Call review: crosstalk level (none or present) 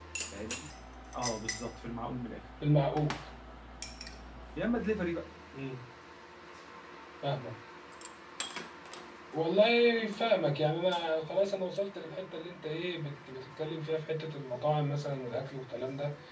none